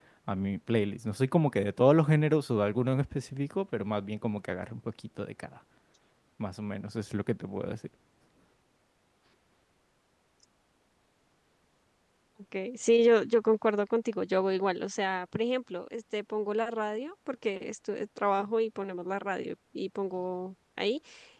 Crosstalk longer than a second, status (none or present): none